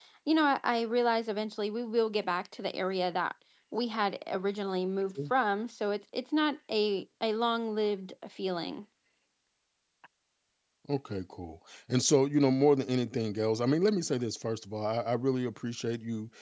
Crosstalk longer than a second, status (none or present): none